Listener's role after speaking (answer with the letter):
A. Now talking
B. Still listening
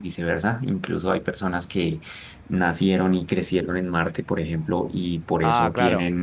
B